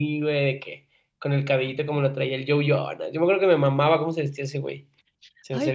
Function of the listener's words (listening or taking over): taking over